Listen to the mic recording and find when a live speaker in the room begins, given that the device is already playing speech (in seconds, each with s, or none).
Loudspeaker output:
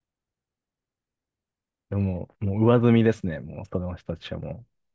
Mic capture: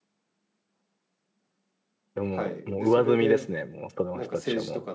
2.3 s